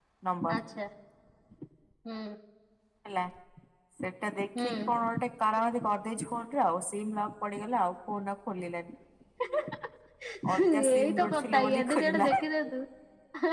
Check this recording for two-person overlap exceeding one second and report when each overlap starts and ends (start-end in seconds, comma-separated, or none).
10.6-12.2